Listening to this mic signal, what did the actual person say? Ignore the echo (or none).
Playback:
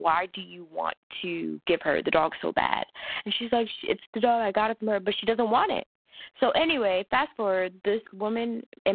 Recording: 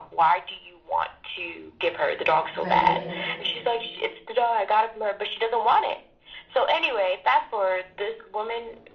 Right.